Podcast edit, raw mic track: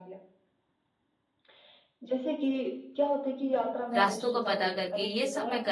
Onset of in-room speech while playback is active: 4.0 s

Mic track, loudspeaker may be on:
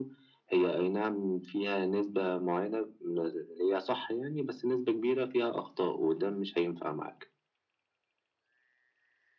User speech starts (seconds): none

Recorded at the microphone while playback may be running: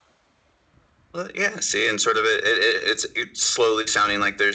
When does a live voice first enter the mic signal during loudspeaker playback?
none

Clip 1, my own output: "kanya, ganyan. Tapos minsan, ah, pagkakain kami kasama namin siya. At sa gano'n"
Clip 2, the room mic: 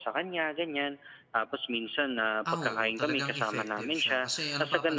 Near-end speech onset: 2.4 s

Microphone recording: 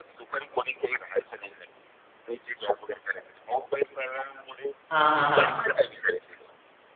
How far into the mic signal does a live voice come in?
4.9 s

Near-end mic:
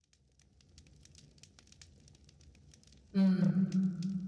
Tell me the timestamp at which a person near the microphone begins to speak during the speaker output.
3.1 s

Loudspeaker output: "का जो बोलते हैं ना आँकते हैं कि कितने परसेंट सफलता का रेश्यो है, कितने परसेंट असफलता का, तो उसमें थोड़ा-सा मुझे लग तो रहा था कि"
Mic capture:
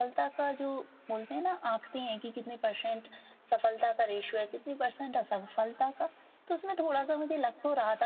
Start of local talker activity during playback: none

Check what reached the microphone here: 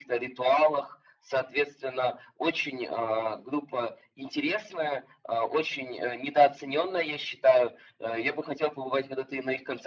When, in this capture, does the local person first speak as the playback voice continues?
none

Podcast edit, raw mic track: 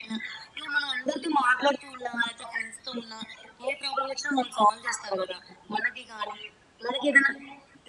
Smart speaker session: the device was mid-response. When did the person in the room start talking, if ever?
none

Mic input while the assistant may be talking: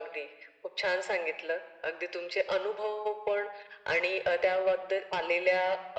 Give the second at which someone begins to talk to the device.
none

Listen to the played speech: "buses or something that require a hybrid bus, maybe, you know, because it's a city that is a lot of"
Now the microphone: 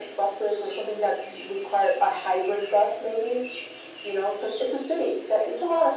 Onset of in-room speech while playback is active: none

